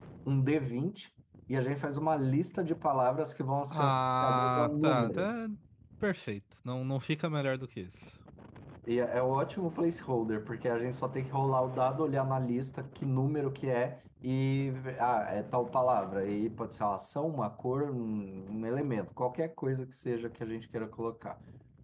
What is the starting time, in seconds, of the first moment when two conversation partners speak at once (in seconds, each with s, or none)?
3.7 s